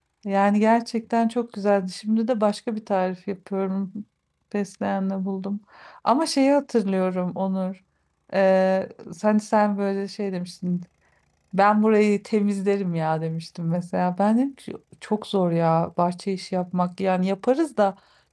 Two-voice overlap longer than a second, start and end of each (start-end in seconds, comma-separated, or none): none